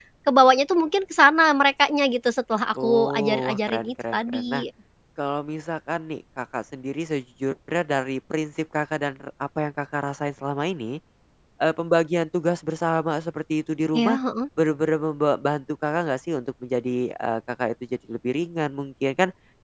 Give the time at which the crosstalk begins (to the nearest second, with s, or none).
3 s